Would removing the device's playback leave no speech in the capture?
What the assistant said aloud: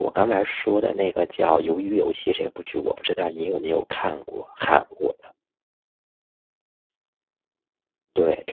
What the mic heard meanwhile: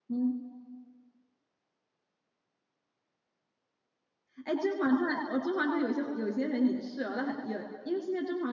No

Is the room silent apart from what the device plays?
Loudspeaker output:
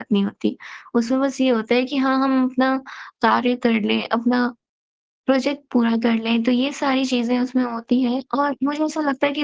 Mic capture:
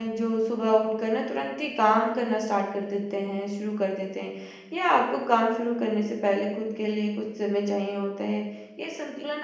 No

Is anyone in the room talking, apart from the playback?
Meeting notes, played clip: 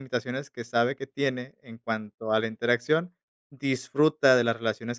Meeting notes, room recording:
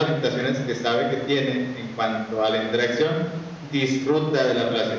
No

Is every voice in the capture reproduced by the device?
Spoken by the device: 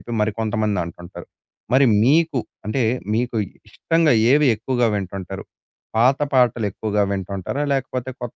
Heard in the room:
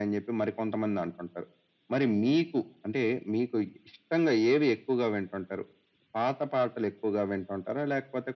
Yes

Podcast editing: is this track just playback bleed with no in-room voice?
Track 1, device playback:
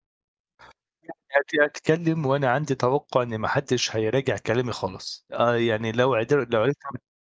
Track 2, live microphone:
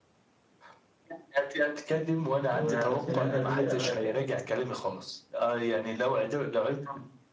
No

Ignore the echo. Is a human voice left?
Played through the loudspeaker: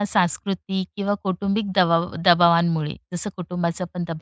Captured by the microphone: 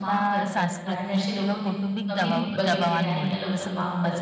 Yes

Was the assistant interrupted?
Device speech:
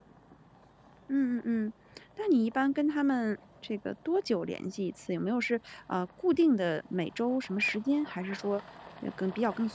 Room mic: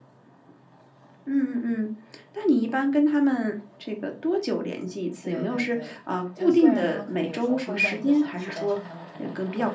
Yes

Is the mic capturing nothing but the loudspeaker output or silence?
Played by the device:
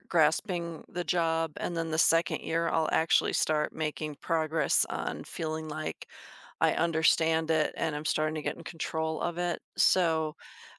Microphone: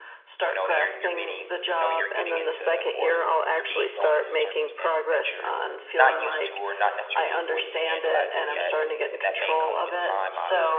No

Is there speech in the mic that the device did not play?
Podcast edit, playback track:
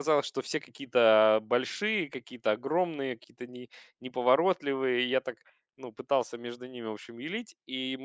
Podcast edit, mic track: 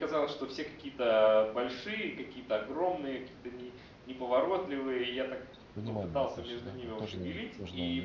Yes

